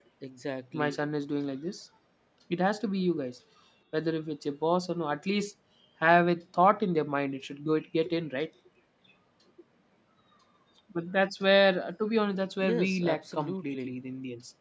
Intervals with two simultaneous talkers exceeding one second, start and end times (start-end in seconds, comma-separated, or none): 12.6-13.9